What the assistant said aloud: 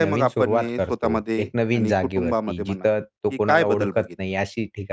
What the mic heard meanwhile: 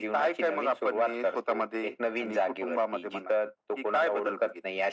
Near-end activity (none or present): none